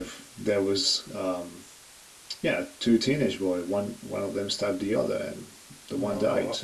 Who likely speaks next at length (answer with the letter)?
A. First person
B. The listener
B